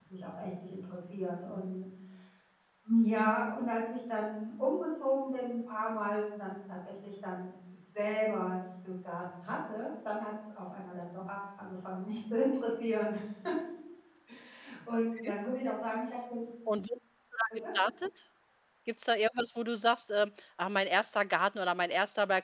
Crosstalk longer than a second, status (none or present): none